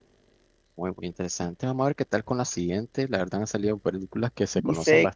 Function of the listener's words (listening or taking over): taking over